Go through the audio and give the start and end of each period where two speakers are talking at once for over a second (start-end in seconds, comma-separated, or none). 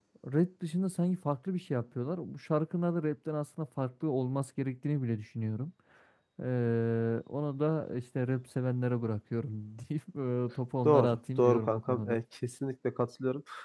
10.8-12.2